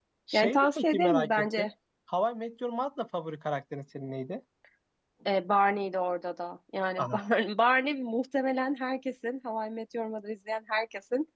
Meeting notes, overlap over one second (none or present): present